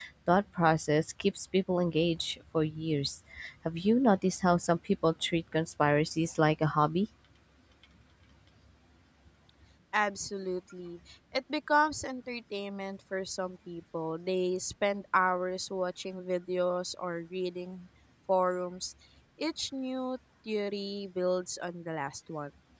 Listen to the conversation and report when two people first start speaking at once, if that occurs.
none

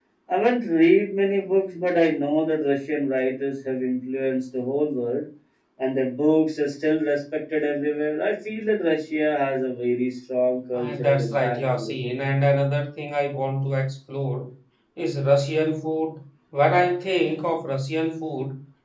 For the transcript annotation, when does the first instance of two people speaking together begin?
10.7 s

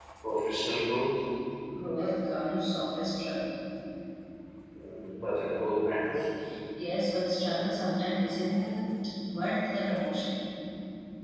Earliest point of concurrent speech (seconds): none

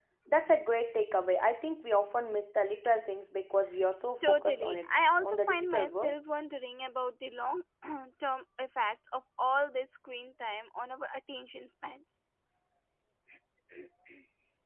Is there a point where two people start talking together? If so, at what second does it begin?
4.2 s

